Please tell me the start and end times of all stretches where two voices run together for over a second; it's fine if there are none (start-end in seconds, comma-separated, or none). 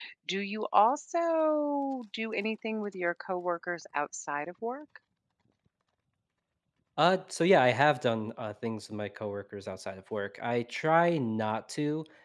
none